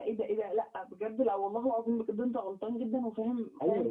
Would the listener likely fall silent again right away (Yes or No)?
No